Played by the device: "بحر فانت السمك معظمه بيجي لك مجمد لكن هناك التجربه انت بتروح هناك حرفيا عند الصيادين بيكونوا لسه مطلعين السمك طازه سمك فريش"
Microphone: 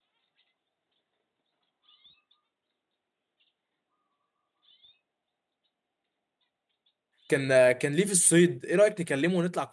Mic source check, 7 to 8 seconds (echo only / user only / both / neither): user only